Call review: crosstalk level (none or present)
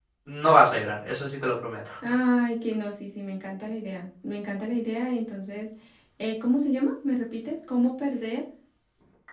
none